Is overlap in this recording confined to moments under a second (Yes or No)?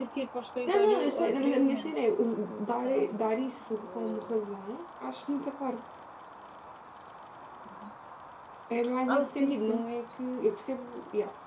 No